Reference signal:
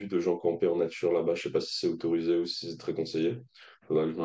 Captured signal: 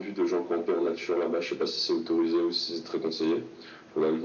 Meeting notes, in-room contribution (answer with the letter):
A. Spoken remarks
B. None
B